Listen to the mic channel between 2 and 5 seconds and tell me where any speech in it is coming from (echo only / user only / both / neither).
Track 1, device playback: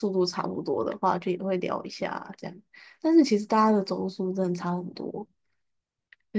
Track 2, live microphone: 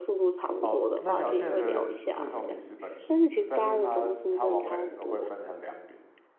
both